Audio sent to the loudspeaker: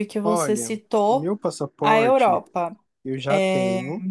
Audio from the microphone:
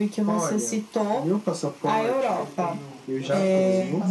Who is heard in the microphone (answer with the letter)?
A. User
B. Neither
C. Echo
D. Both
D